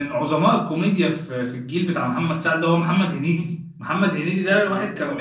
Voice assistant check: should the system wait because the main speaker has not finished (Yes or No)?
Yes